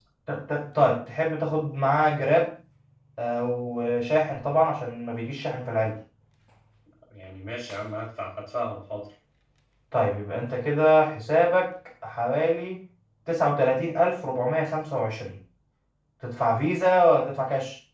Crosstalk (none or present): none